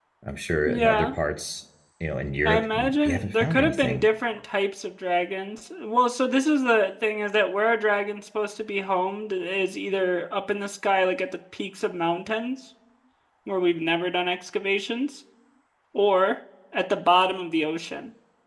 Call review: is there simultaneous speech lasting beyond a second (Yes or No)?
Yes